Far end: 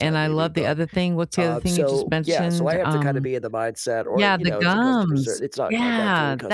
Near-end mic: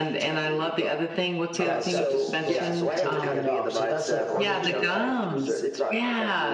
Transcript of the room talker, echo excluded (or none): that stuff is supposedly taking it off, so that's a a ritual that I